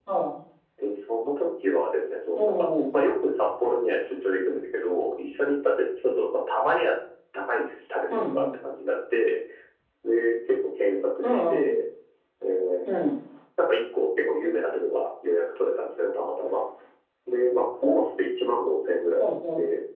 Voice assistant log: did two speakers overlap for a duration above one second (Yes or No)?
No